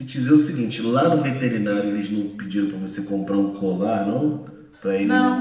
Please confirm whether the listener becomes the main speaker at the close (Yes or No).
Yes